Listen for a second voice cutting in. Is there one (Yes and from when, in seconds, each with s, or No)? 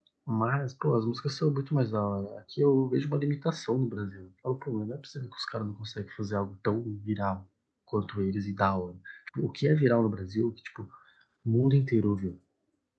No